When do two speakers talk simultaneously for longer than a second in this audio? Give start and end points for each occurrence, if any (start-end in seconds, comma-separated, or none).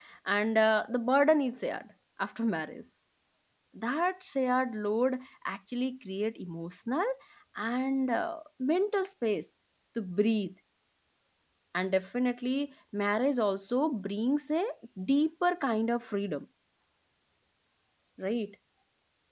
none